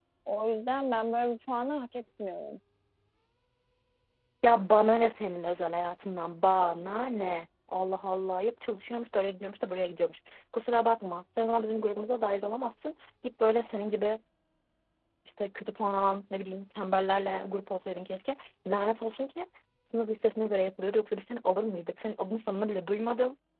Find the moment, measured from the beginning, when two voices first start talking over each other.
none

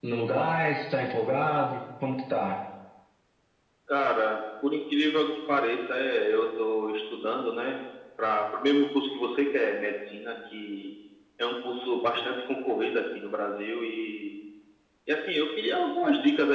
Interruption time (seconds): none

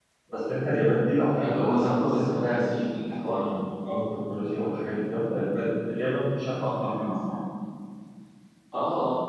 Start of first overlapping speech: 1 s

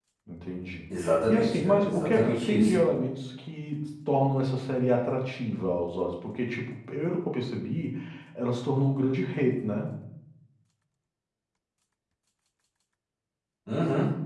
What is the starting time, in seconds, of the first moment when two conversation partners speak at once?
1 s

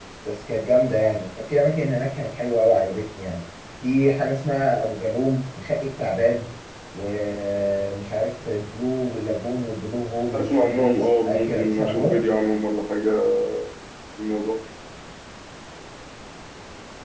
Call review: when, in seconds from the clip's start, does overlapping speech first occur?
10 s

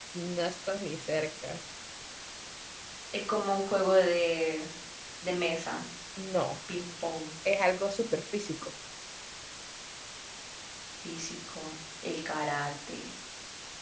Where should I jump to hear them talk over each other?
none

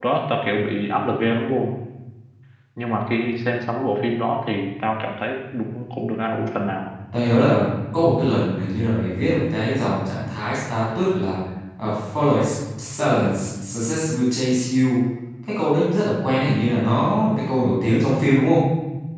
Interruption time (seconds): none

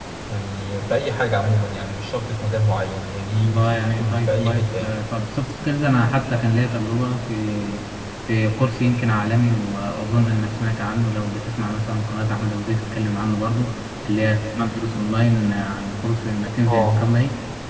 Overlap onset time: 3 s

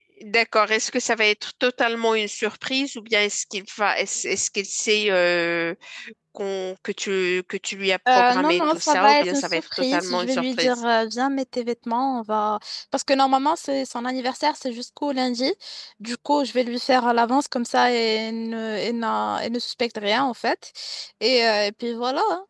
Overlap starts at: 8 s

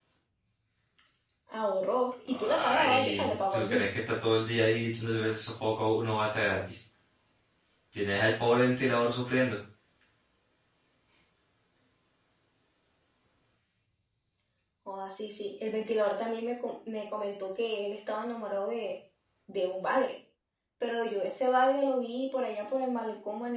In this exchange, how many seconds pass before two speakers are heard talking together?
2 s

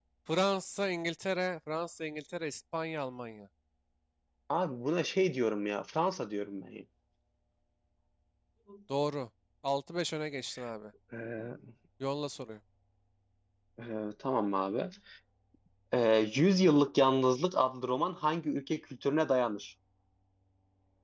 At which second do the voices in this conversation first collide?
none

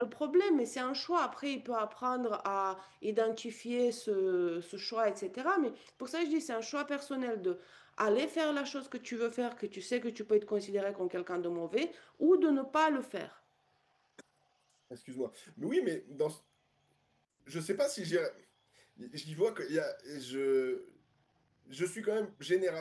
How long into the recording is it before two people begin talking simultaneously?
none

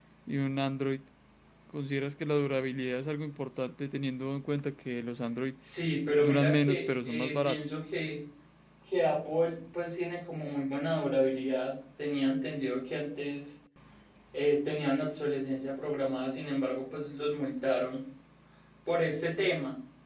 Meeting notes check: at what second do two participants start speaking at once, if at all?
6 s

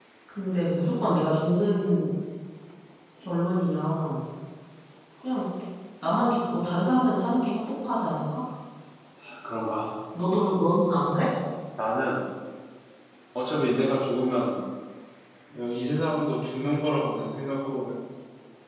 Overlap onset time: none

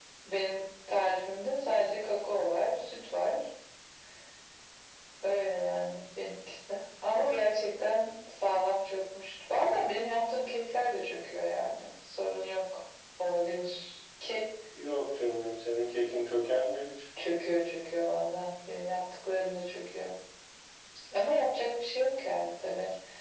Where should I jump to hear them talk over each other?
none

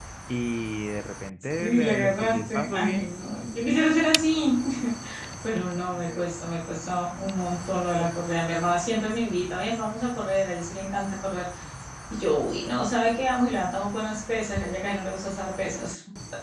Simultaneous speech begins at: 2 s

